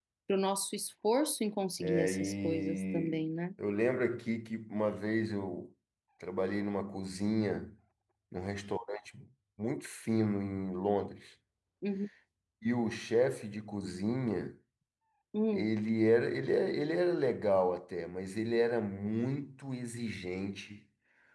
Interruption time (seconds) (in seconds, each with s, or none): 1.8 s